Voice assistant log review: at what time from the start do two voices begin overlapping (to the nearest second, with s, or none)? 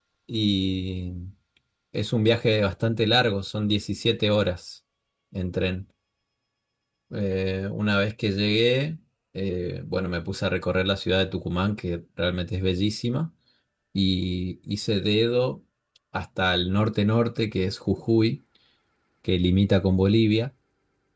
none